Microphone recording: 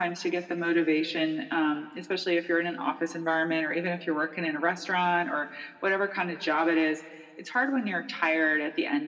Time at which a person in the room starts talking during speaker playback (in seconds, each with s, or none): none